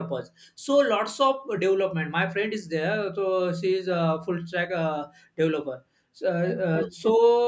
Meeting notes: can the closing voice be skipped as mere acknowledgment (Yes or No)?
Yes